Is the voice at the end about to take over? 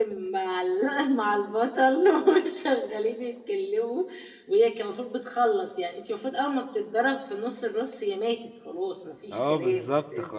Yes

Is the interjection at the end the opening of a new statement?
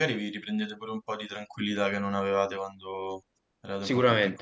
Yes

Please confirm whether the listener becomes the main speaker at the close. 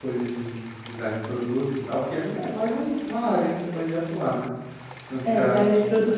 Yes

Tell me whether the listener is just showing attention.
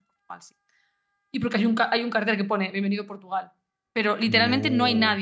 Yes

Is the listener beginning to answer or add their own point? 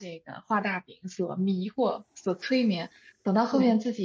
No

